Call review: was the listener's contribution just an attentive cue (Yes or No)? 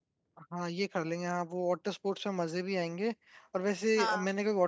Yes